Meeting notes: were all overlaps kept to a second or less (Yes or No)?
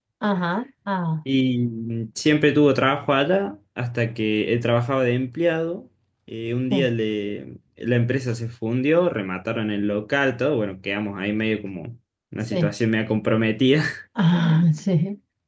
Yes